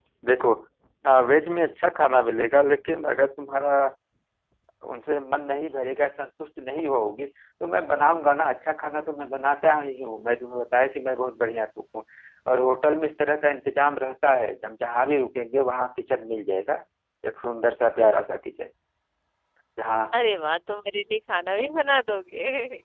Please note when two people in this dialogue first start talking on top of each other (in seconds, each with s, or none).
none